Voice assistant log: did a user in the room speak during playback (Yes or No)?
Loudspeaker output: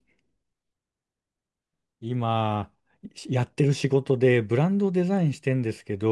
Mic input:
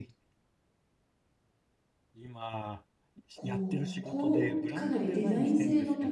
Yes